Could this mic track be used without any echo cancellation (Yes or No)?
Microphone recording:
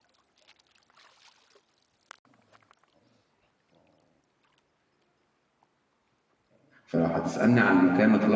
Yes